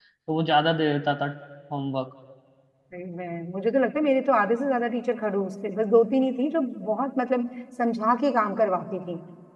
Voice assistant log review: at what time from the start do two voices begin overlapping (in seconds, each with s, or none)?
none